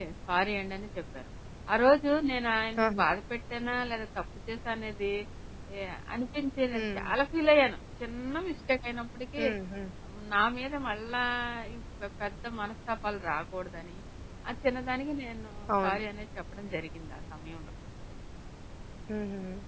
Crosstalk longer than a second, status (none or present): none